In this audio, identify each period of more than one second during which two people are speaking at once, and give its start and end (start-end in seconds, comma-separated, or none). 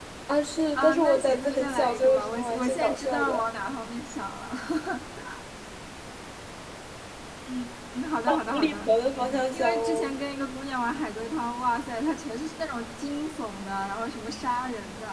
0.8-3.4, 8.5-10.1